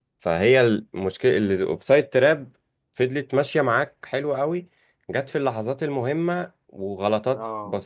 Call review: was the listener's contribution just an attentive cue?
Yes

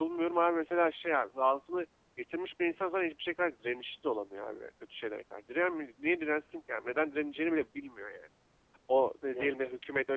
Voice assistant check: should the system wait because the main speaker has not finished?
Yes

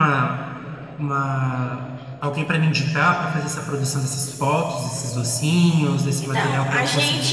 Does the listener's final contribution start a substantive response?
Yes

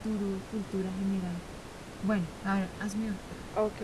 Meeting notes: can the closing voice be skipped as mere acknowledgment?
No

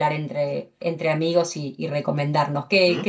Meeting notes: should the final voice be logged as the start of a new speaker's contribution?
No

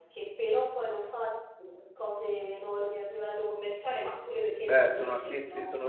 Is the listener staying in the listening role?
No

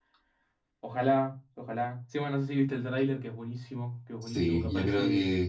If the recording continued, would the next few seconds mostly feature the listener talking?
Yes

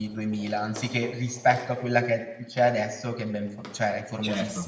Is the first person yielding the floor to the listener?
Yes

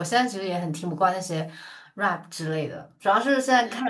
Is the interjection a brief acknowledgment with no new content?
Yes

